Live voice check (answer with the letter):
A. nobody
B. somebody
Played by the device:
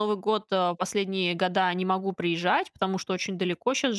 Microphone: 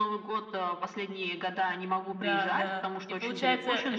B